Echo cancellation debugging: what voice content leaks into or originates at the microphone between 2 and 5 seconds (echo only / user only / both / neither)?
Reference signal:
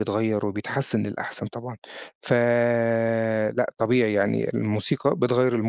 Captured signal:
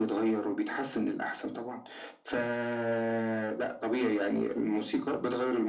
echo only